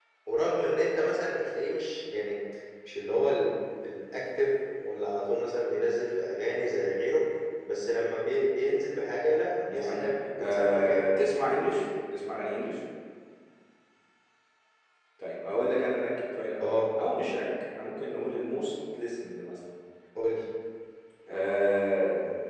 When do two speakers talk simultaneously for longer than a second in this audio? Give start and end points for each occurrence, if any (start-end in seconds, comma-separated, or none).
9.6-11.1